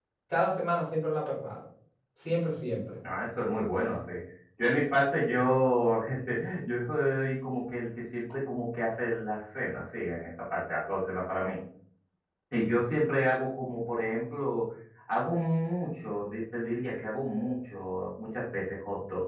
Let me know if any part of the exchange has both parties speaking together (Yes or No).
No